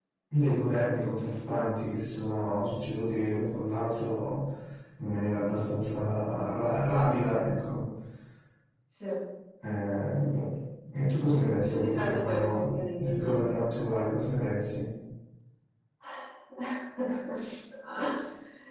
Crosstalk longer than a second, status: present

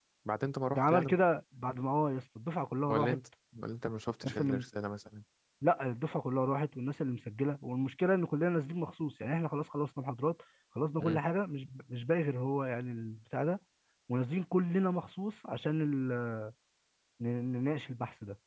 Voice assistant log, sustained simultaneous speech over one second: none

